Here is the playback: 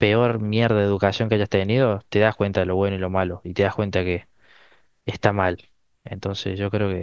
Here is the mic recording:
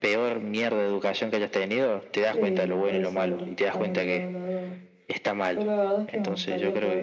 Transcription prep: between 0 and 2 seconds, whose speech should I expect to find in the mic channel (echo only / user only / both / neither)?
echo only